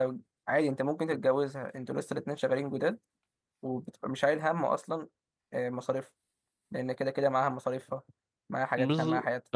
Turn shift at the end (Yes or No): Yes